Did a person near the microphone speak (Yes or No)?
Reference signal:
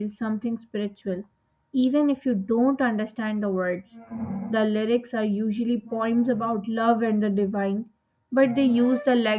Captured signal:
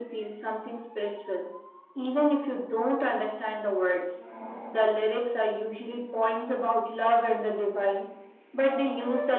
No